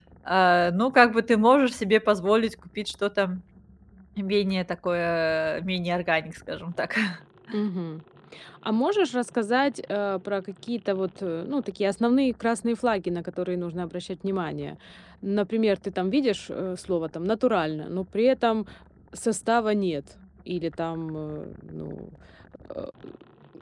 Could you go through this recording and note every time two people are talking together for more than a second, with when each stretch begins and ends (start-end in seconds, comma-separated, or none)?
none